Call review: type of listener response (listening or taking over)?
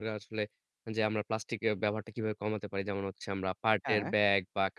listening